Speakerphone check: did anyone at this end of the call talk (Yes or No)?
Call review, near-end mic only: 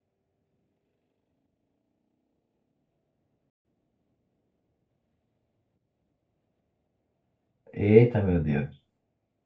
Yes